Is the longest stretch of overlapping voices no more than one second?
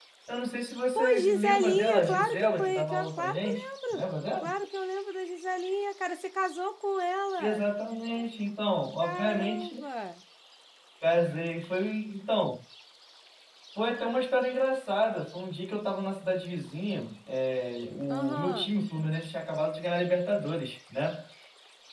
No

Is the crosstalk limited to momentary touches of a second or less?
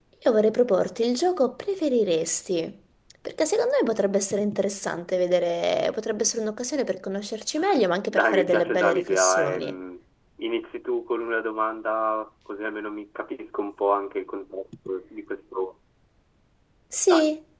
No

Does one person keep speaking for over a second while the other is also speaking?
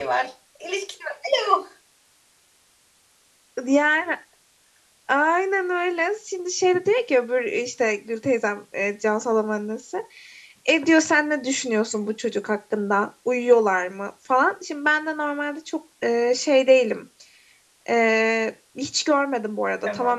No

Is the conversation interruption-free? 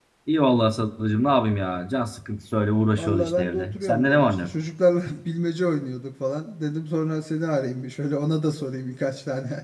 No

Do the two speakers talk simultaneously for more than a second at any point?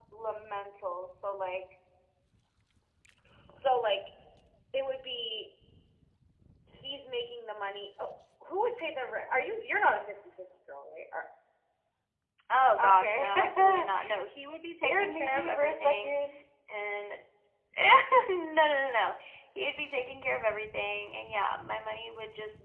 Yes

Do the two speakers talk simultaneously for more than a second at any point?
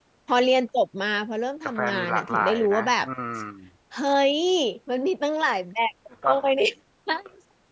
Yes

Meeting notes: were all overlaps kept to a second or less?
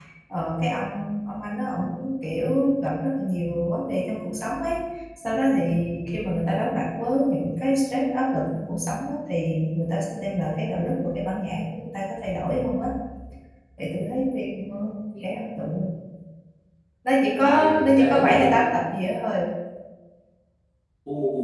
No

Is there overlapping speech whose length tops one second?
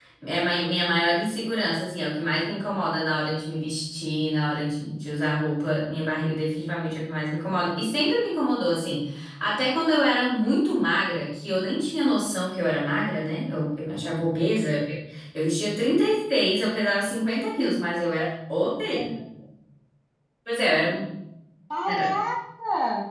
No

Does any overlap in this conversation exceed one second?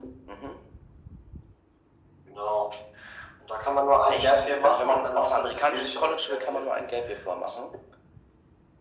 Yes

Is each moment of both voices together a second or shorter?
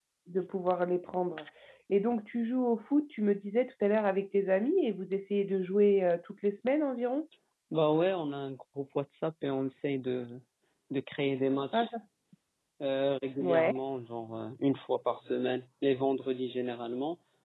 Yes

